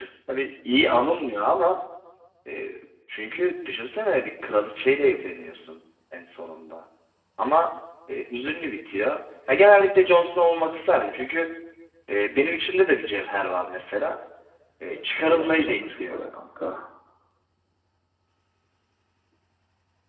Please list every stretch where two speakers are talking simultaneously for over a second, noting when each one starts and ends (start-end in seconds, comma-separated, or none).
14.9-16.2